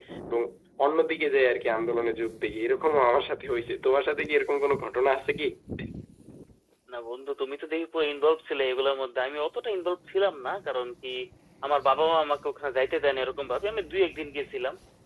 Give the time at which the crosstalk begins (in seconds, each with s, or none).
none